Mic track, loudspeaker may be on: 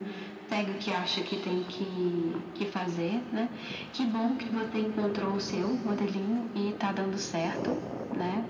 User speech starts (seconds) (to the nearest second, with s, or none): none